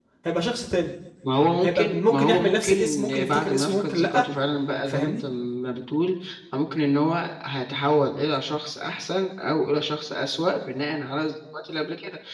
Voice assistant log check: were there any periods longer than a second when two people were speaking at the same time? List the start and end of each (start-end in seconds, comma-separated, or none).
1.6-4.2